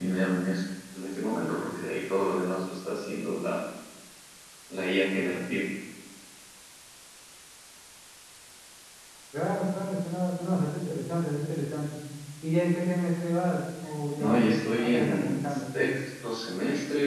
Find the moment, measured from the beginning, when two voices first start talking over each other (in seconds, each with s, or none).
14.2 s